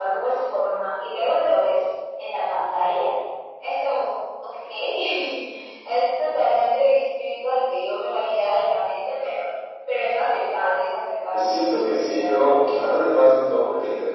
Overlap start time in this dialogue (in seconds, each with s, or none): 11.3 s